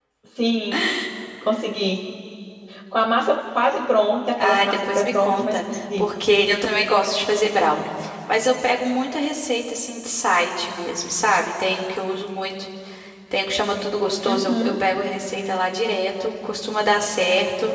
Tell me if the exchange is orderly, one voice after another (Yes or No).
No